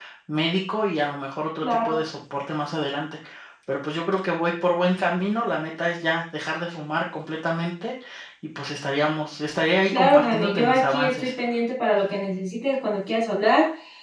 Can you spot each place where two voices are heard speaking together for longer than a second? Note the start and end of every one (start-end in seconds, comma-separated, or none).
9.9-11.3